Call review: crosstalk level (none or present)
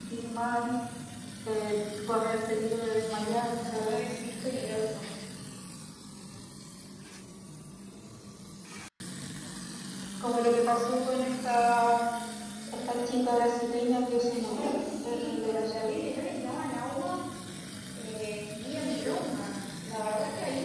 present